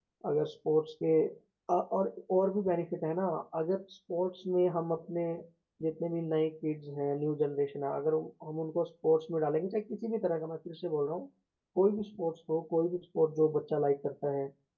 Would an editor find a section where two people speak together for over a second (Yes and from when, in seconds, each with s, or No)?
No